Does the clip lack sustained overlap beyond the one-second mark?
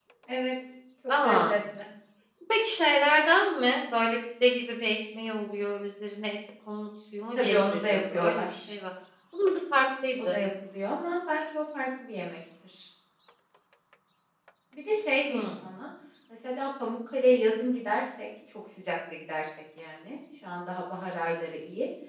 No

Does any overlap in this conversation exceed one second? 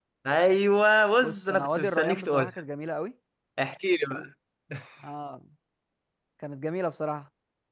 Yes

